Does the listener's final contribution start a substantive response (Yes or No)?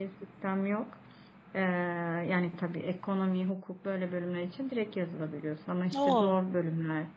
No